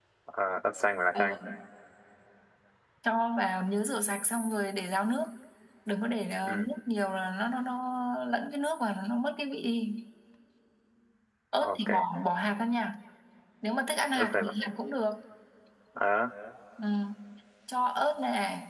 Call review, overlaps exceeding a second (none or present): none